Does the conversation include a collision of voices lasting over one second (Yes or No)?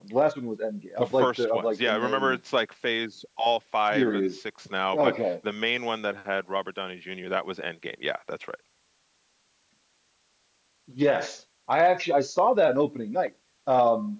Yes